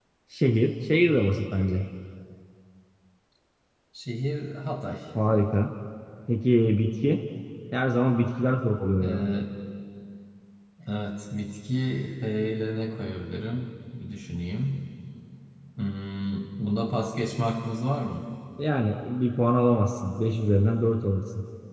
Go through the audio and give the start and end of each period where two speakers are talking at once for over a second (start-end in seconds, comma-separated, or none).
none